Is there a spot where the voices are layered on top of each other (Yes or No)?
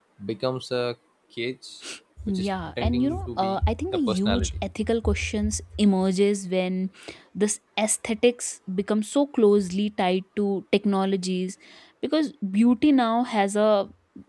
Yes